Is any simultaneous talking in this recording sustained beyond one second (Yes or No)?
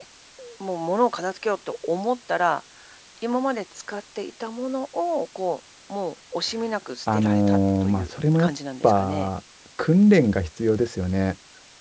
Yes